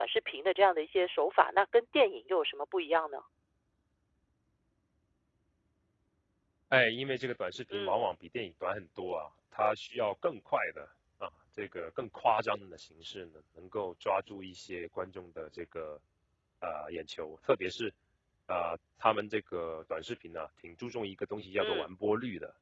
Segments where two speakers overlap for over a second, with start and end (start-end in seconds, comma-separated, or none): none